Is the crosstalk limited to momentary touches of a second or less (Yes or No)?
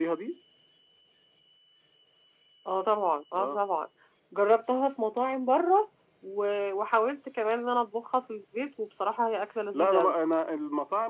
Yes